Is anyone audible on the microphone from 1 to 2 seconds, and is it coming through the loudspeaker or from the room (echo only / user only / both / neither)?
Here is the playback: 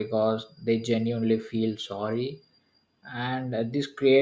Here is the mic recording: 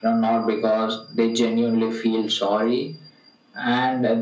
echo only